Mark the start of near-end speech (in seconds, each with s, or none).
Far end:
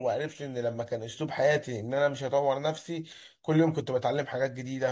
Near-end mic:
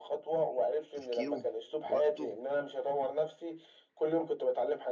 0.9 s